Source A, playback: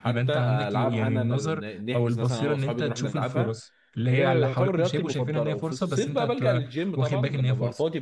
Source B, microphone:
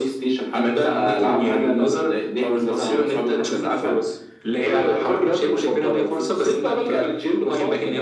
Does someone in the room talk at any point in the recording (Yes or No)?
No